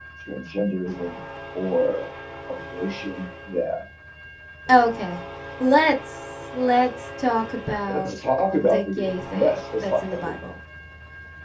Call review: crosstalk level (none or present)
present